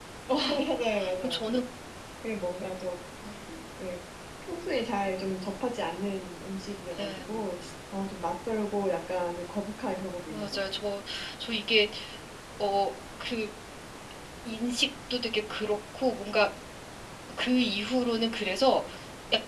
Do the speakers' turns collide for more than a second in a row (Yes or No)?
No